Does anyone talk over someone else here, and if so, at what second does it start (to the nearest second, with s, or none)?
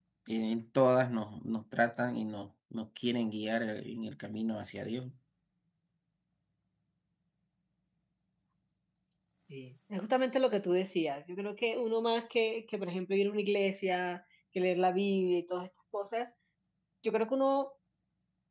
none